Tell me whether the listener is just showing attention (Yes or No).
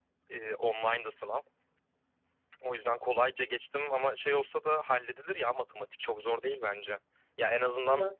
Yes